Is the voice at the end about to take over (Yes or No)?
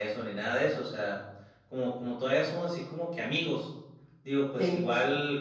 No